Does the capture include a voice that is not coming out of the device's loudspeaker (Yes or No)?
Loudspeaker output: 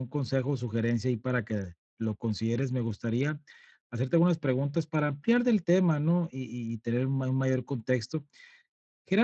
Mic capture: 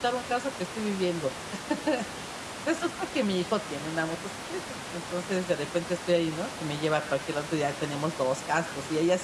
Yes